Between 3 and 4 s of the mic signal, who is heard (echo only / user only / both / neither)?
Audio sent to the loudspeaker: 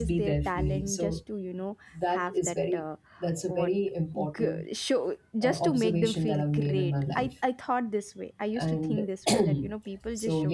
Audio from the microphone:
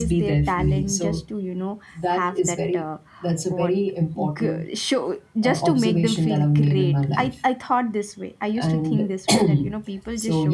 echo only